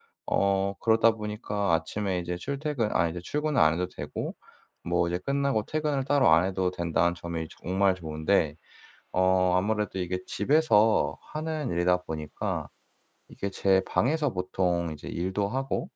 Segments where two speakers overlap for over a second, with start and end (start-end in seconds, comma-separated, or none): none